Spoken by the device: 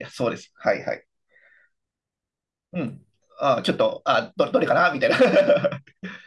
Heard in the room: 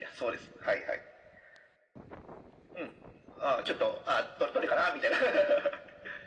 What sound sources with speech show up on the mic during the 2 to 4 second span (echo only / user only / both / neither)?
echo only